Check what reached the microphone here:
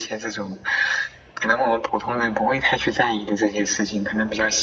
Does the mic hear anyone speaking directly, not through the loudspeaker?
No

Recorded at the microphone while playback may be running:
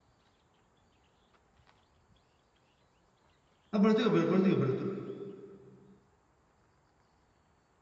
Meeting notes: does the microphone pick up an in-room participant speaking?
Yes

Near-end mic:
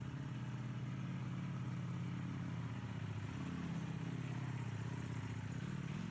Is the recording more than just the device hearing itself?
No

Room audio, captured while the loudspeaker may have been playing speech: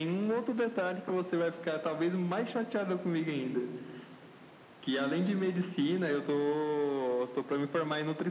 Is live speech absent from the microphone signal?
Yes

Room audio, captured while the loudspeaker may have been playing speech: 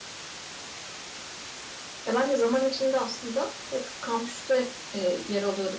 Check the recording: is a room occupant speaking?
Yes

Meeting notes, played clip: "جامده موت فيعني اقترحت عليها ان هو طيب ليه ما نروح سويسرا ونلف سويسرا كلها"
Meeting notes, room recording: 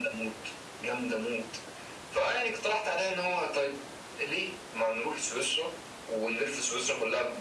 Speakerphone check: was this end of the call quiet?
Yes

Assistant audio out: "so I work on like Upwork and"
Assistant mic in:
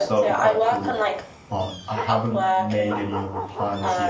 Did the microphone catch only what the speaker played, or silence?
No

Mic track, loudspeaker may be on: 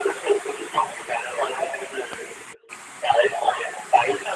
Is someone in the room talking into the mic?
No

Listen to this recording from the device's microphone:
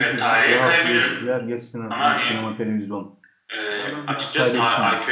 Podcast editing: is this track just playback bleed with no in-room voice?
No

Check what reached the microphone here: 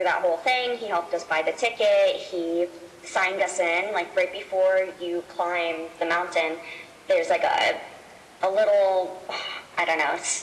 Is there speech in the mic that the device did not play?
No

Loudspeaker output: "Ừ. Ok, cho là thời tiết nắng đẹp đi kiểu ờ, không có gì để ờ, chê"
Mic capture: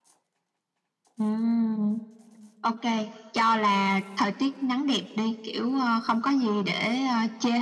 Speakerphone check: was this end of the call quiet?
Yes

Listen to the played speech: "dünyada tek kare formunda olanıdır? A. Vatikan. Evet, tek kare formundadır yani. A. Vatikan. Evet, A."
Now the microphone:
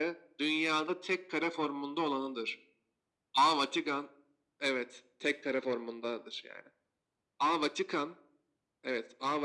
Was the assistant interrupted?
No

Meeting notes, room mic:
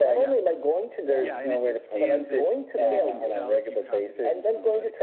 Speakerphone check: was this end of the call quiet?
No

